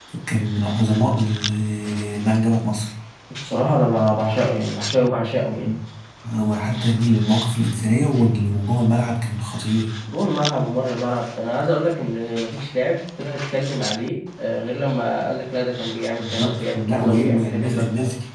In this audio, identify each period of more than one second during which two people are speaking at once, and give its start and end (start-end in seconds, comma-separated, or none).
16.2-17.8